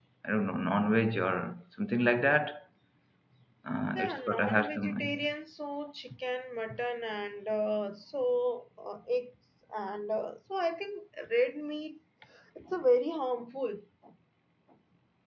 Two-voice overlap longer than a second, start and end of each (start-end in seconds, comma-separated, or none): 4.0-5.2